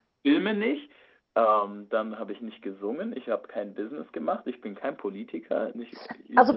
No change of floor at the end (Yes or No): No